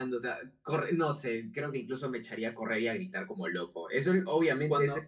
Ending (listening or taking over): taking over